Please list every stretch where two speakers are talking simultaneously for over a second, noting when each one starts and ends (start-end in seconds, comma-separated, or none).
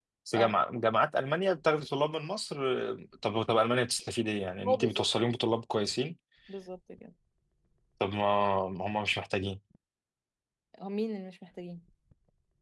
none